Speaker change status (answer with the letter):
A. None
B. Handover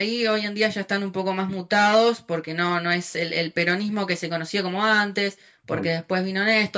A